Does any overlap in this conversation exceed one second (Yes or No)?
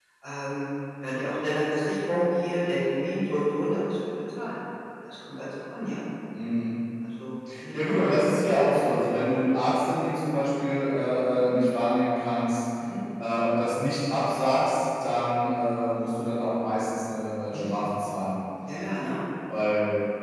No